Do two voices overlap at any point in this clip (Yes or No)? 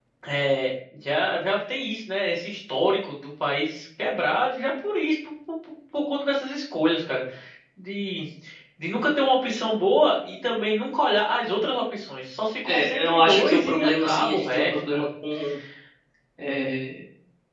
Yes